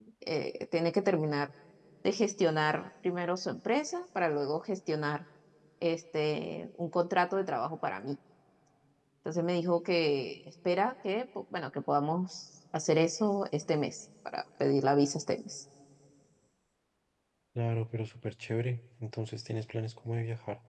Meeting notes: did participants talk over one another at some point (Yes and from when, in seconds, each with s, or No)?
No